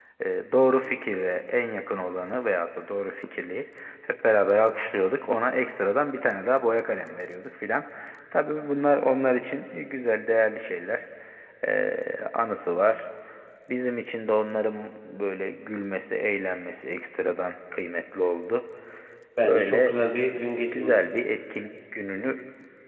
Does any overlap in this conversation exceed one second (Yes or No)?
No